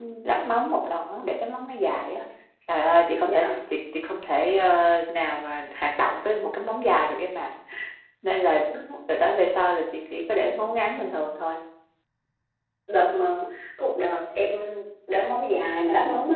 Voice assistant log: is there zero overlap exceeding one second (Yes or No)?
Yes